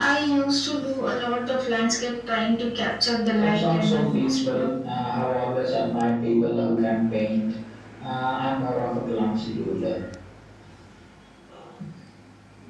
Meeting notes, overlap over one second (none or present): present